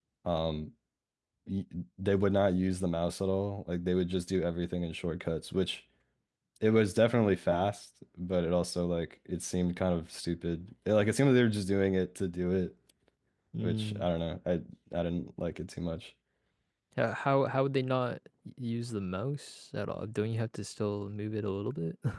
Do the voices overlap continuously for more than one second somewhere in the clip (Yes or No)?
No